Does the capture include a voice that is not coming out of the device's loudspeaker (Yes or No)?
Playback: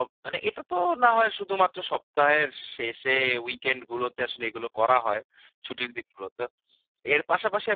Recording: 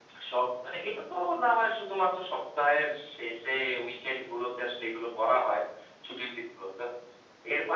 No